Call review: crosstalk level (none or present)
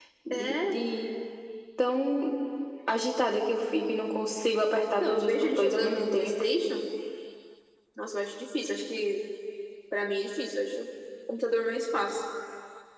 present